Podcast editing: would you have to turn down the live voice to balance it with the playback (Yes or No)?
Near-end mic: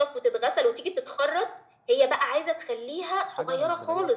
No